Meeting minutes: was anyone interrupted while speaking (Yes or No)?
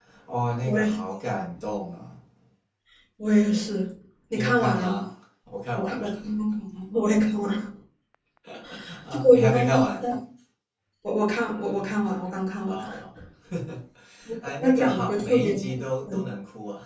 Yes